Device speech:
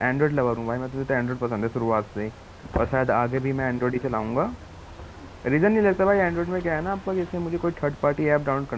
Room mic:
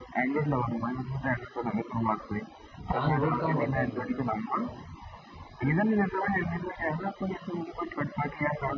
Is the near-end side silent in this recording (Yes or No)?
No